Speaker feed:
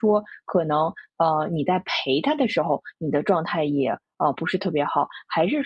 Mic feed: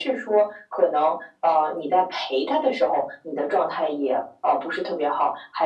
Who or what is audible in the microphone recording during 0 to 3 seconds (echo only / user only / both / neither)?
echo only